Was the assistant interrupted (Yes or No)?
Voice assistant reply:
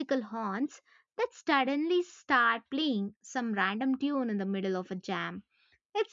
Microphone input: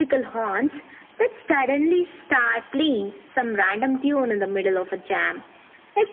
No